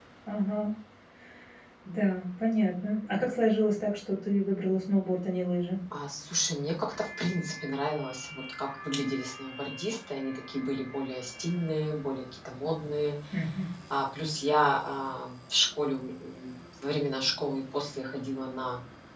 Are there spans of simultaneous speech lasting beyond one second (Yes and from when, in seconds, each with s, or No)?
No